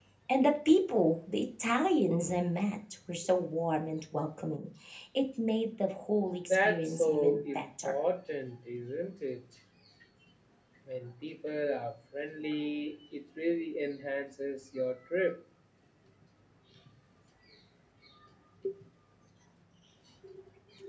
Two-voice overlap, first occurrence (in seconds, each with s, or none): 6.5 s